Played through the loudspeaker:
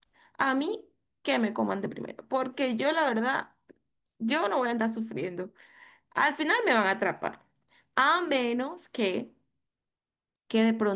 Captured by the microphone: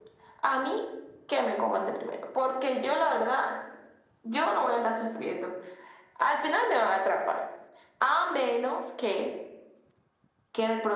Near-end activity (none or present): none